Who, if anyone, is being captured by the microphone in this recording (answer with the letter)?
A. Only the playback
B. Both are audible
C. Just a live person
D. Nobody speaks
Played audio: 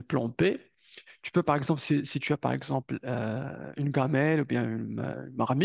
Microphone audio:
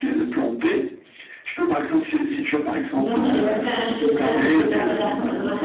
B